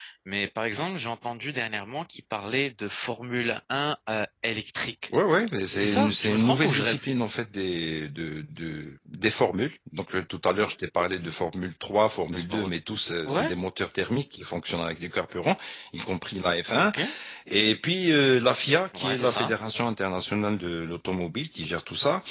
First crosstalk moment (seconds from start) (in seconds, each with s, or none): 5.8 s